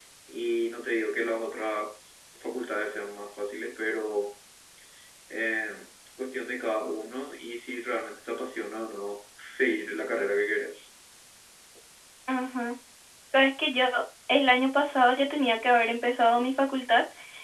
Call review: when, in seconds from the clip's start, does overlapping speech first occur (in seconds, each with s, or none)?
none